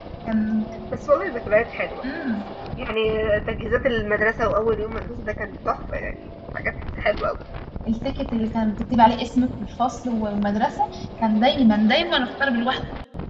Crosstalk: none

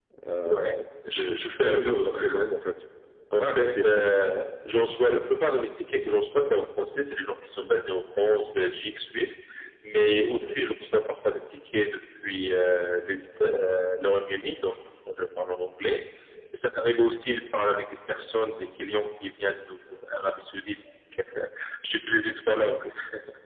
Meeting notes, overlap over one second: present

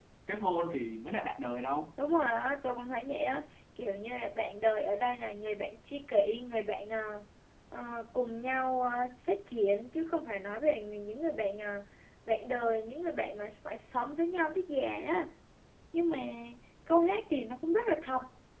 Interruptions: none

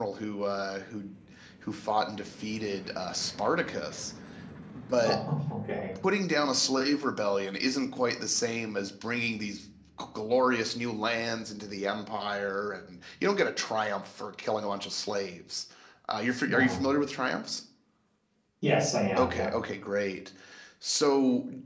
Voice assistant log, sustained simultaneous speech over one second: none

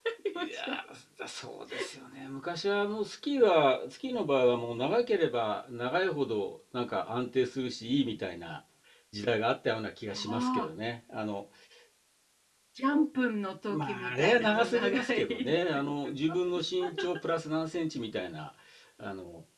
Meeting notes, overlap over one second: present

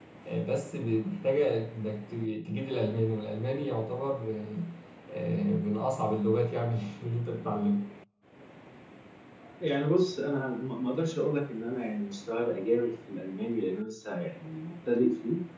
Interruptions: none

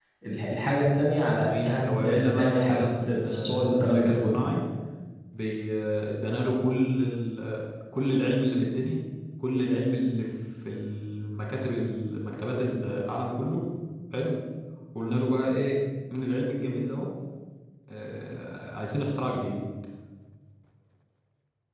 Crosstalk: present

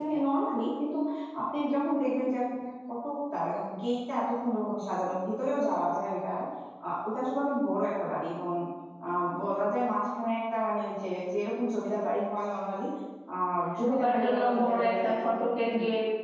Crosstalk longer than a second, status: present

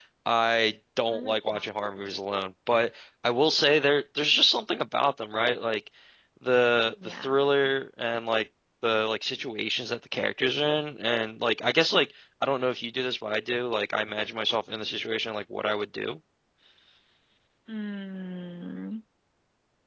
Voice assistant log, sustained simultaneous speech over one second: none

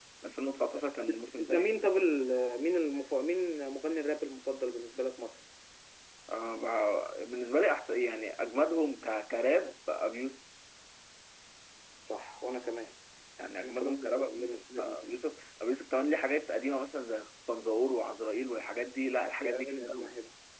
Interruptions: present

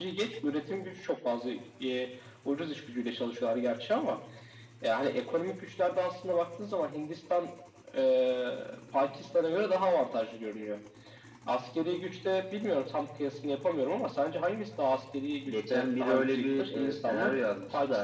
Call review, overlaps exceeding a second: present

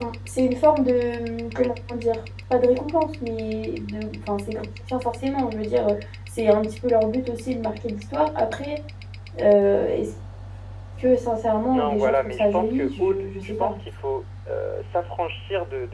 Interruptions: present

